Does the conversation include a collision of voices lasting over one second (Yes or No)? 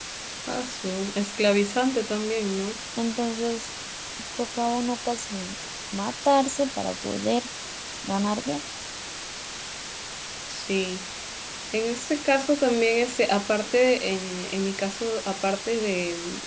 No